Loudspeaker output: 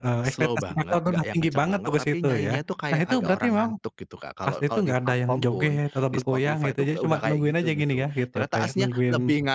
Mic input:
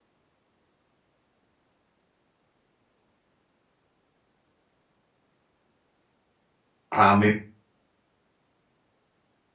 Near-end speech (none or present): present